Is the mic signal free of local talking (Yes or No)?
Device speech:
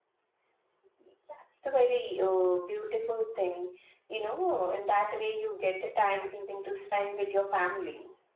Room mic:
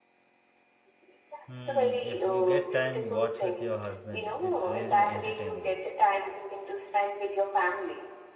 No